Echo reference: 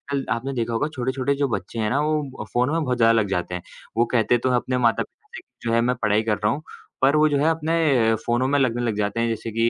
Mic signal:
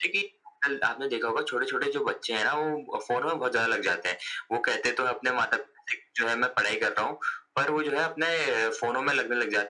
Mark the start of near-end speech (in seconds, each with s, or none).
none